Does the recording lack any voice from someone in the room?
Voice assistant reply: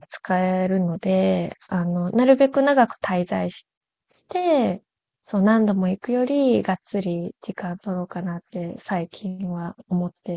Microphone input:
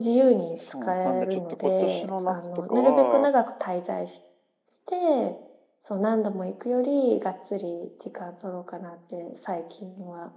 No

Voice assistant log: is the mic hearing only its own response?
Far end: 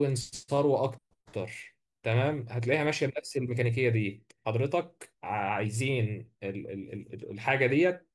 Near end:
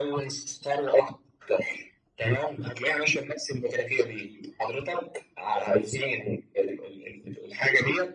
Yes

